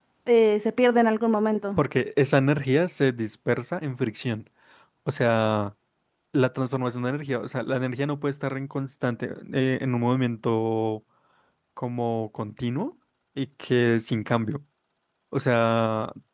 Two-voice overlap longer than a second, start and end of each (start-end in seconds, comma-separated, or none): none